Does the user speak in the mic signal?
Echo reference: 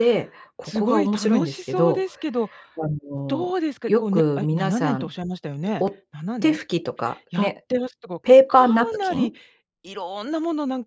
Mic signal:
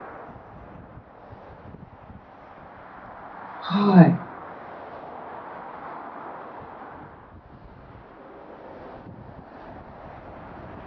Yes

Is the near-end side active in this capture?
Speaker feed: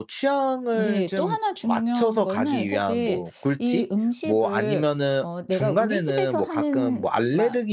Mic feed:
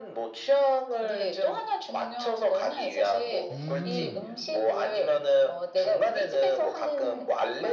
Yes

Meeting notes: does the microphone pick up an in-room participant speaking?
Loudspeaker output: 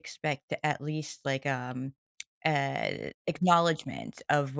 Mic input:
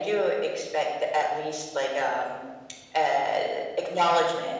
No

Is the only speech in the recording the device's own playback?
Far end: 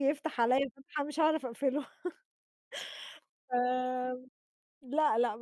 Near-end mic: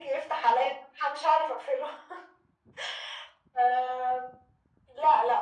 Yes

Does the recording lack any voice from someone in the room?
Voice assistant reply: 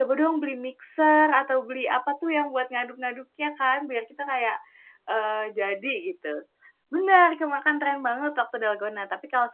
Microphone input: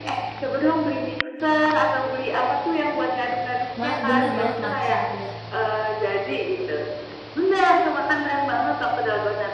No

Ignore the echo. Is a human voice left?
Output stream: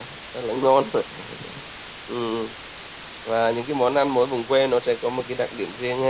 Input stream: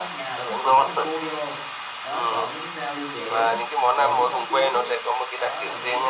Yes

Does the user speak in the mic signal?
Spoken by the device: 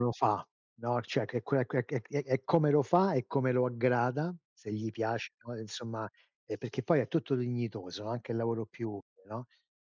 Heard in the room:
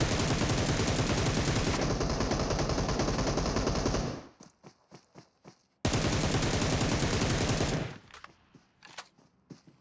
No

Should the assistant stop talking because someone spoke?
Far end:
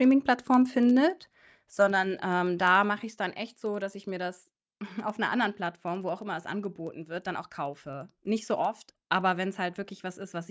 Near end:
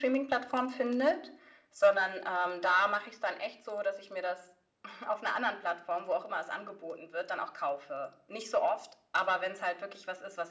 No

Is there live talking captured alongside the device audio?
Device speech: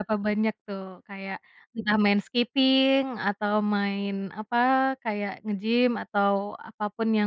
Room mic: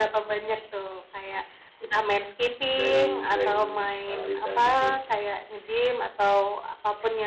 Yes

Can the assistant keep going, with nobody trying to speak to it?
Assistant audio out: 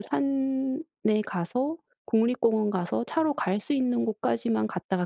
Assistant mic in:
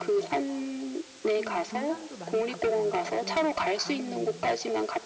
No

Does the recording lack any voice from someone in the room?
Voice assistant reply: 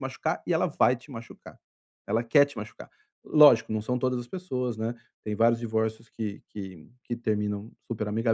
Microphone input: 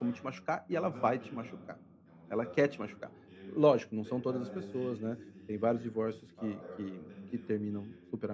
No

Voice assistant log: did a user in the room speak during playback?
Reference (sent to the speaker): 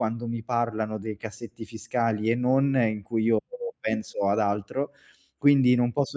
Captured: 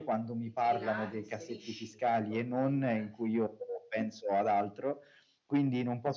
Yes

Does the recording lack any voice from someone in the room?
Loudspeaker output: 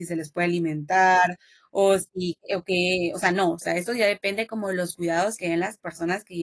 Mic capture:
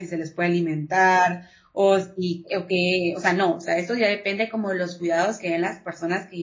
Yes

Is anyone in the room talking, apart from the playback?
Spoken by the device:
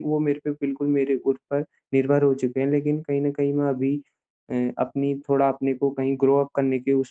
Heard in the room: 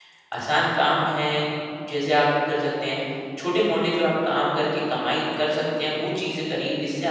Yes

